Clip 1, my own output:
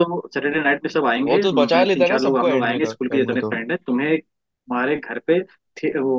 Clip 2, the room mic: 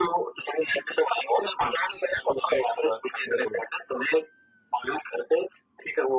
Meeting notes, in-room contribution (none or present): none